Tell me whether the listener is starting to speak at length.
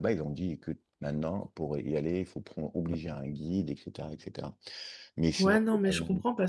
Yes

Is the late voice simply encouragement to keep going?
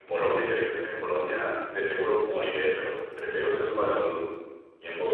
No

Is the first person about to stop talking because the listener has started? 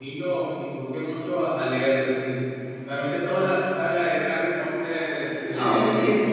No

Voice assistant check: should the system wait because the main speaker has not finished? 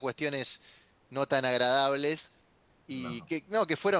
Yes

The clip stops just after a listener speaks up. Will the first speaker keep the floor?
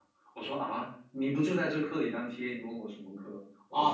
No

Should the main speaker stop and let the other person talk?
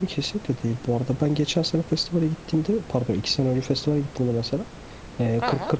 No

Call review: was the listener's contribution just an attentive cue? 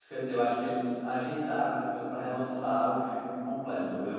Yes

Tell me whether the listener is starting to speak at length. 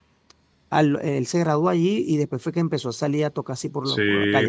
Yes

